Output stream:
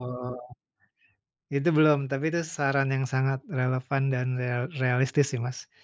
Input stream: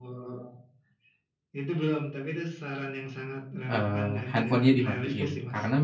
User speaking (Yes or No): Yes